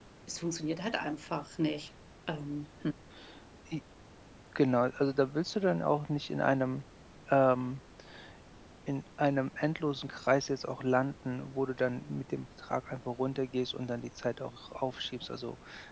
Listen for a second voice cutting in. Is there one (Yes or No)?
No